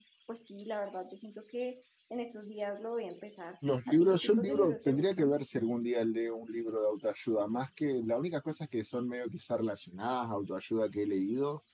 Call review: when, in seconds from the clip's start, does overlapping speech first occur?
3.9 s

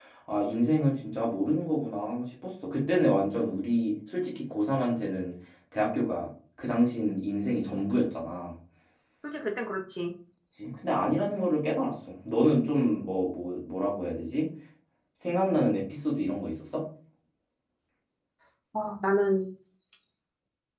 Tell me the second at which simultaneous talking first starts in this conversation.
none

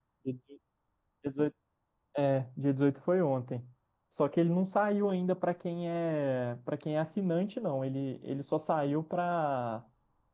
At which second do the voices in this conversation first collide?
none

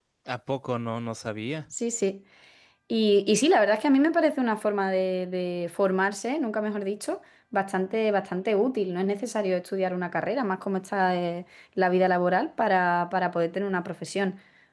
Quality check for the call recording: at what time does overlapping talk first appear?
none

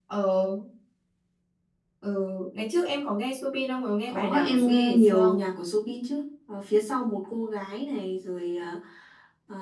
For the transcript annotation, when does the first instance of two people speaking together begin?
4.1 s

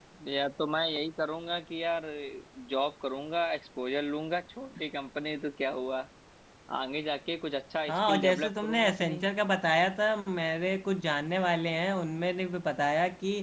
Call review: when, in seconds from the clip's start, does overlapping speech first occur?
7.9 s

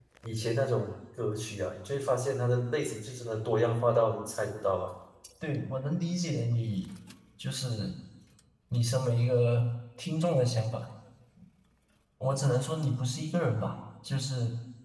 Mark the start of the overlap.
none

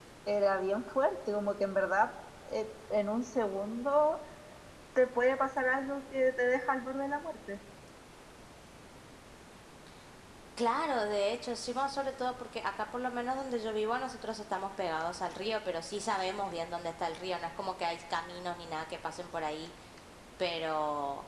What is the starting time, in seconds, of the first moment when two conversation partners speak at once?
none

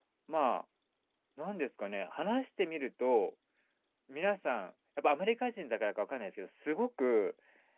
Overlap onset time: none

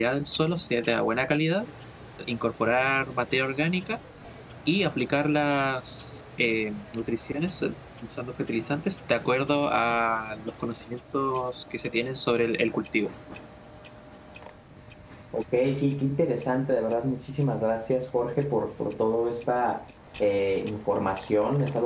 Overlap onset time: none

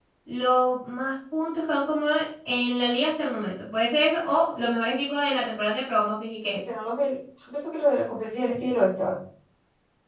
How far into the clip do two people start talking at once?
none

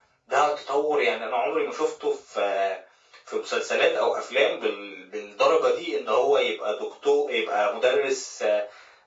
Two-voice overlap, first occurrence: none

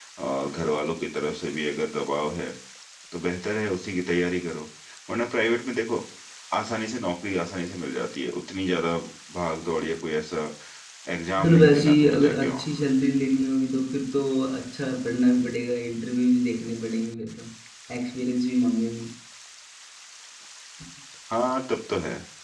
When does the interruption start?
11.4 s

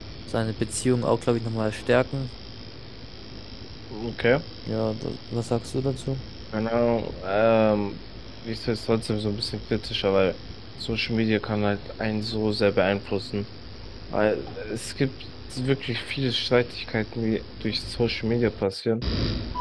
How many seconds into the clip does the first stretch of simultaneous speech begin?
none

